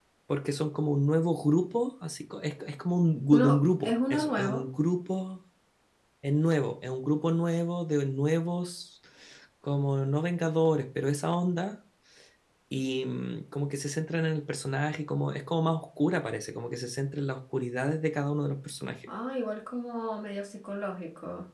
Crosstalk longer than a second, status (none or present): present